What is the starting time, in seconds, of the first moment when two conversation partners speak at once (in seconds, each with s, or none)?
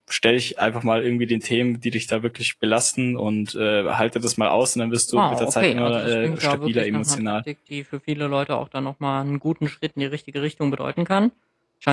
5.2 s